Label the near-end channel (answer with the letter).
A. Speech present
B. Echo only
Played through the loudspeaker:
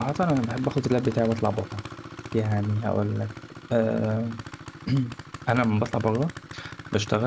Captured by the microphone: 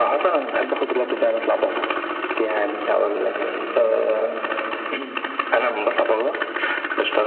B